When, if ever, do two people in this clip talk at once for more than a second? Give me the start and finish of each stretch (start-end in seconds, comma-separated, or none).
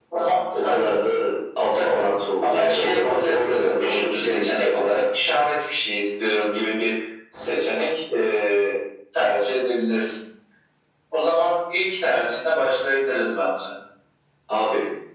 2.4-4.8